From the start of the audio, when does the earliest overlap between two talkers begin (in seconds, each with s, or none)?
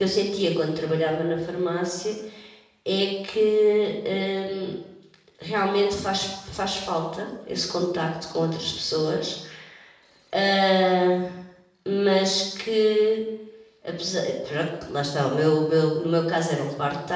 none